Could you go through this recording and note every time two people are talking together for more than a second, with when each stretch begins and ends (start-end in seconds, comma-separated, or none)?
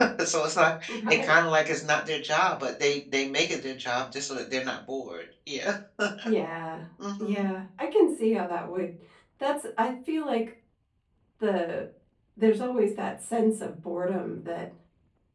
none